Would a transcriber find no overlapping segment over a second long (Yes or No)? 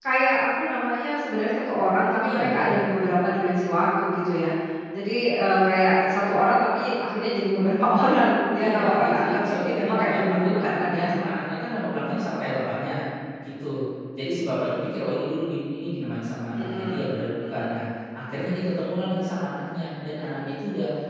No